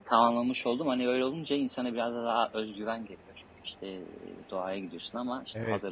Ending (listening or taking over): taking over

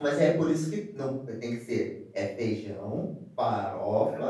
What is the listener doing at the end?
listening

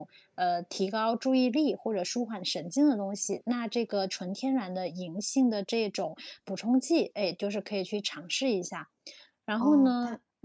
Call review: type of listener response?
taking over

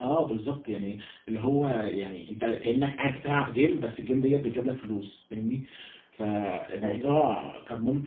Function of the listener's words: listening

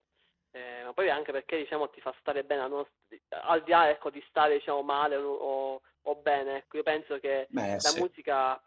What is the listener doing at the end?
listening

